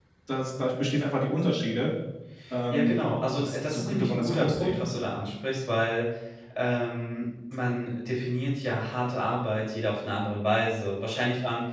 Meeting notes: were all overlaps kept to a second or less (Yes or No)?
No